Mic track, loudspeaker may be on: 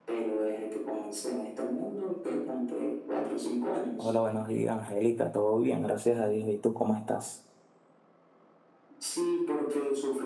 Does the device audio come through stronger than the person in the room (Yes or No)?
No